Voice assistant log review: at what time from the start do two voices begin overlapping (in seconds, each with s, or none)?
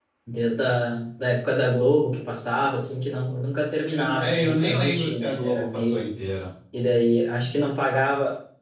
3.9 s